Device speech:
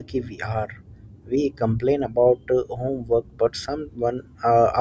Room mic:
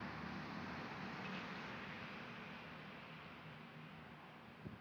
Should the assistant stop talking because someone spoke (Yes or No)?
No